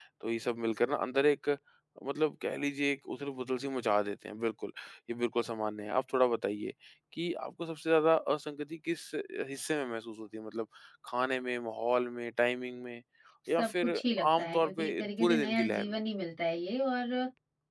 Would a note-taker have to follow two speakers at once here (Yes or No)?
Yes